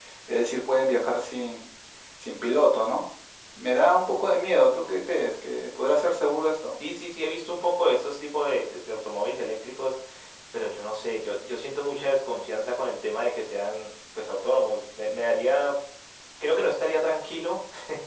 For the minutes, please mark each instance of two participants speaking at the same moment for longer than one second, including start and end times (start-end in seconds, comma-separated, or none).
none